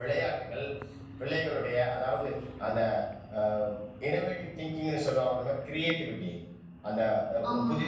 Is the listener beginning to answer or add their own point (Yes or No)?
No